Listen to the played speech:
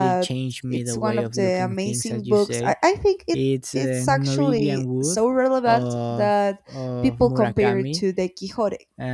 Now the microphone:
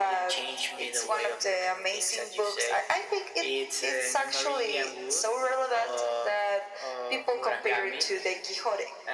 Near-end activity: none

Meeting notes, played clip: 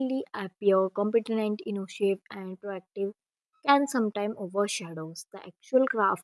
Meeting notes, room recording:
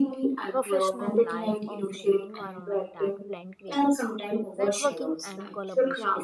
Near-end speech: present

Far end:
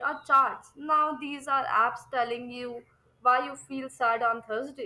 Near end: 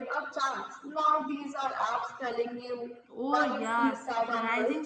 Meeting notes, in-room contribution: present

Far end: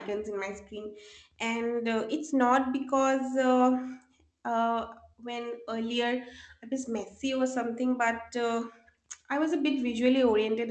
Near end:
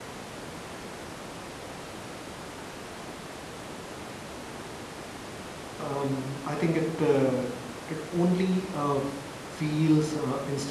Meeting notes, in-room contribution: present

